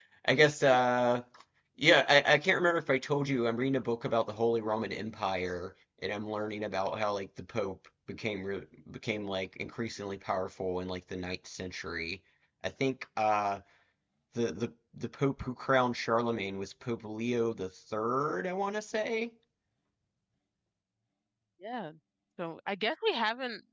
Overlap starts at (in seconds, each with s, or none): none